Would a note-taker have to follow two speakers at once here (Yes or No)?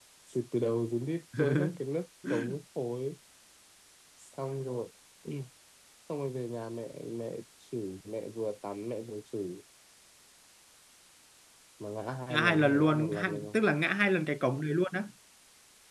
Yes